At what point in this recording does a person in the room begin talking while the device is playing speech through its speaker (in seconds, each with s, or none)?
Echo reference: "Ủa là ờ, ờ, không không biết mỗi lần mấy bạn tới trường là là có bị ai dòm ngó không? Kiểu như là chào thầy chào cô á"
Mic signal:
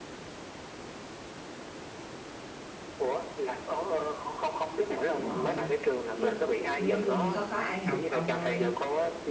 5.1 s